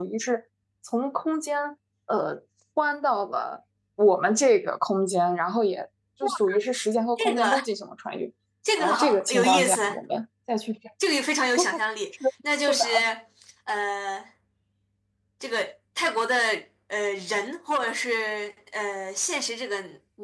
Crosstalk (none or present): present